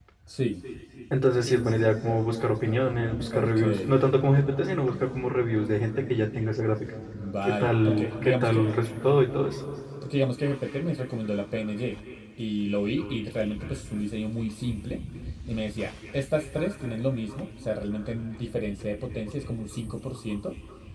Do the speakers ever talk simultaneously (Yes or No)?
Yes